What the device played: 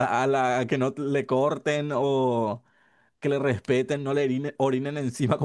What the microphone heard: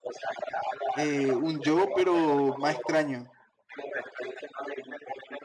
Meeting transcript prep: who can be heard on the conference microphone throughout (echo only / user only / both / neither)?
both